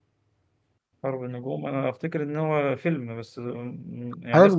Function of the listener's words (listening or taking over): taking over